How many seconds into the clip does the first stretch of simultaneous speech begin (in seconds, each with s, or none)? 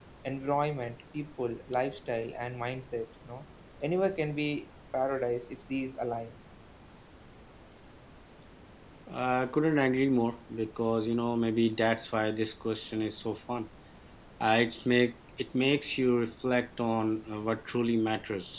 none